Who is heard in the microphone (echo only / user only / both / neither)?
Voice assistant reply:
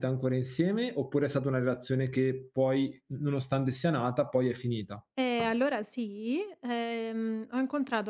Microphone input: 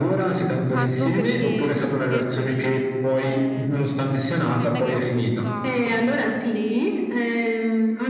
both